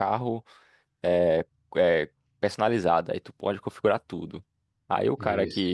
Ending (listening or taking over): listening